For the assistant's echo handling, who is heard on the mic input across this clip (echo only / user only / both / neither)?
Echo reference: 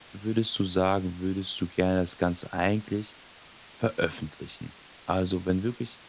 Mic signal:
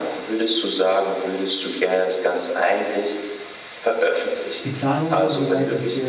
both